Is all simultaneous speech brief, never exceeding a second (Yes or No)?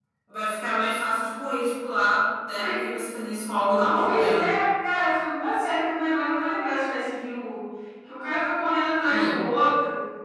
Yes